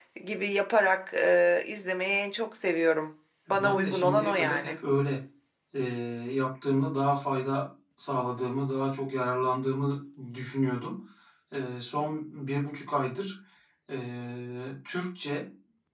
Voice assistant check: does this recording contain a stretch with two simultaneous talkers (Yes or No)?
Yes